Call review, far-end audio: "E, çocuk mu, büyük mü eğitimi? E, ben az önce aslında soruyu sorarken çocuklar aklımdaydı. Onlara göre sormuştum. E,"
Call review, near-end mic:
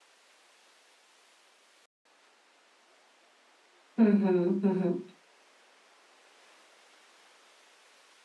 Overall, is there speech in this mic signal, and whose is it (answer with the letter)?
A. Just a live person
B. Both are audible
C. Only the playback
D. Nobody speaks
A